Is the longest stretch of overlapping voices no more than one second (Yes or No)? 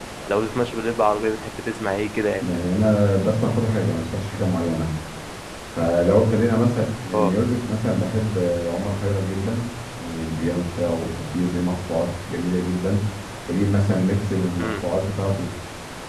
Yes